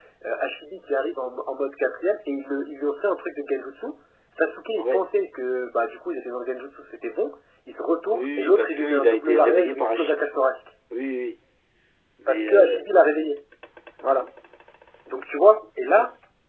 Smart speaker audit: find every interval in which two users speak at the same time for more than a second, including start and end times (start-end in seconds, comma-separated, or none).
8.1-10.3